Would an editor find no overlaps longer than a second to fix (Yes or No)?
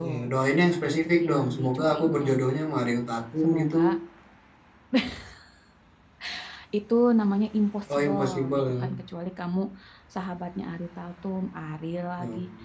No